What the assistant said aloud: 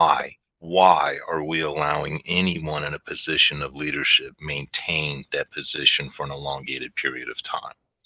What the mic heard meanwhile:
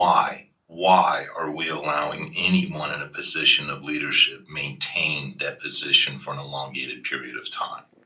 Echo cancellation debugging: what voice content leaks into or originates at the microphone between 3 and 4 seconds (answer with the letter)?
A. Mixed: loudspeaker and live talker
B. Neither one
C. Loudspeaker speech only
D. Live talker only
C